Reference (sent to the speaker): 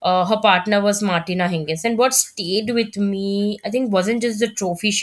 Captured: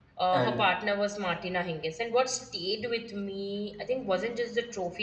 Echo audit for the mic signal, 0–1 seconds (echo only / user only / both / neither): both